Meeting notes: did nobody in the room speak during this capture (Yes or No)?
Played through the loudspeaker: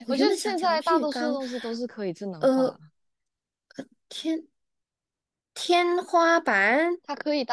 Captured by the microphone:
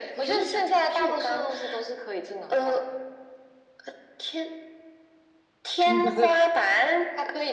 No